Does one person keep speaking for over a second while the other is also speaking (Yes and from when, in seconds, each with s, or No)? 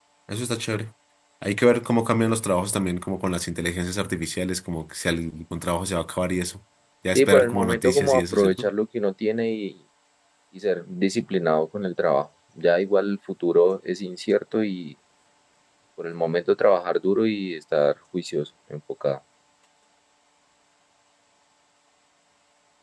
Yes, from 7.1 s